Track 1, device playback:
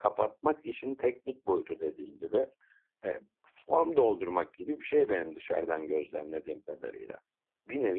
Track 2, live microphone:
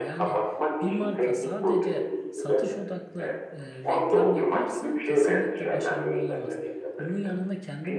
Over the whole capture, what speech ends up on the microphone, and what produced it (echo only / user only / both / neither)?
both